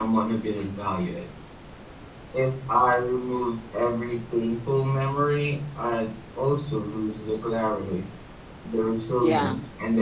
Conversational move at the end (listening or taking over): listening